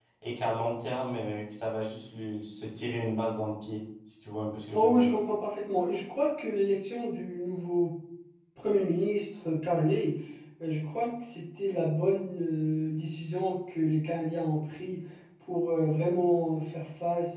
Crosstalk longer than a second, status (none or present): none